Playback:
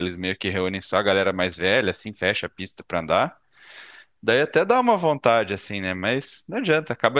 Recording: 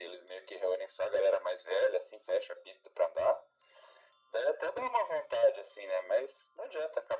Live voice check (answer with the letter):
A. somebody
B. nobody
B